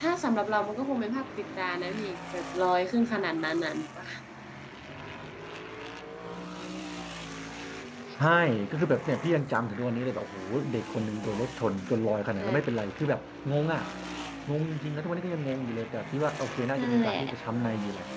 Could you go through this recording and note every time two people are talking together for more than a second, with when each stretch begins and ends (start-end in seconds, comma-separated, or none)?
none